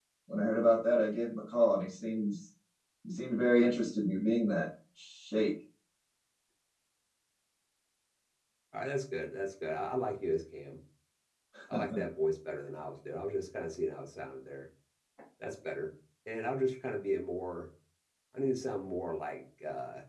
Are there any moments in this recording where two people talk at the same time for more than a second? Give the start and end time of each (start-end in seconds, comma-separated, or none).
none